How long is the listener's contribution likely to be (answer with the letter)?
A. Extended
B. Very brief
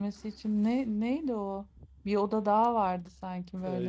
A